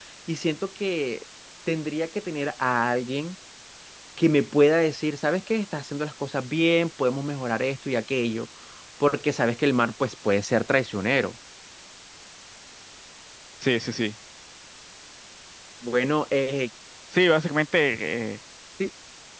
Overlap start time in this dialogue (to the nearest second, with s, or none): none